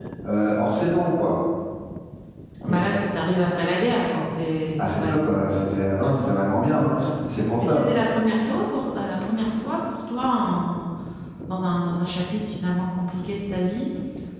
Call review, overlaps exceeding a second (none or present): none